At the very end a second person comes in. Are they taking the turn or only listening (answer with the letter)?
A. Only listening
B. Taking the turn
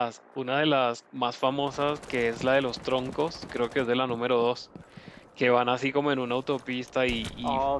A